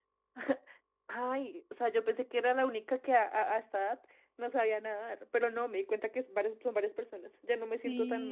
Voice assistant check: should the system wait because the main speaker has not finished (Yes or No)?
No